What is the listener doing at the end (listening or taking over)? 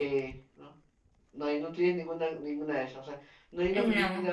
listening